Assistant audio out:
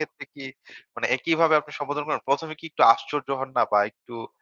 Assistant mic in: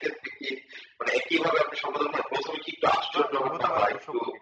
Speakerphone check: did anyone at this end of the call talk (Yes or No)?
Yes